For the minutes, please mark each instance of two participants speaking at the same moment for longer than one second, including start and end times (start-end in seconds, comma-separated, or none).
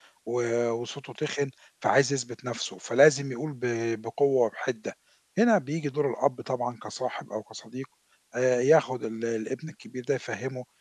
none